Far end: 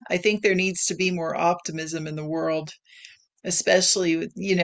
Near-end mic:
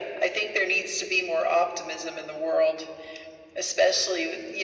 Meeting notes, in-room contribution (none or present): none